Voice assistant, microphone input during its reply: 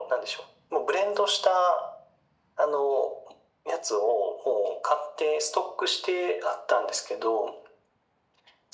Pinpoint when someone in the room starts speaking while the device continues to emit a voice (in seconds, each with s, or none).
none